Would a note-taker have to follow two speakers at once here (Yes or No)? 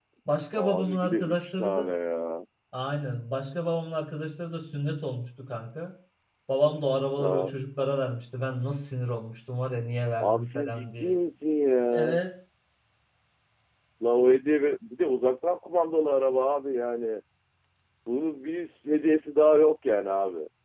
Yes